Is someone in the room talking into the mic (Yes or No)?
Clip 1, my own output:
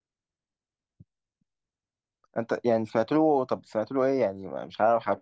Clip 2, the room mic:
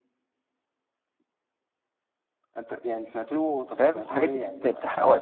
Yes